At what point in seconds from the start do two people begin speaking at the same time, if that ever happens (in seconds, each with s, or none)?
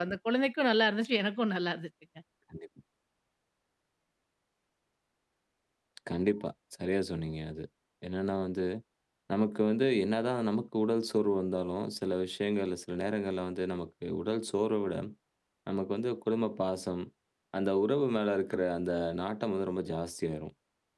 none